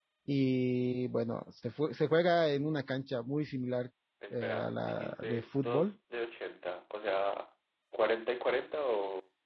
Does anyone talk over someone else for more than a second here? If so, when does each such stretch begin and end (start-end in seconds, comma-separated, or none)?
4.3-5.9